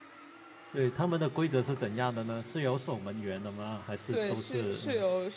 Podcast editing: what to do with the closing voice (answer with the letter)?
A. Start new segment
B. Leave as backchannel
A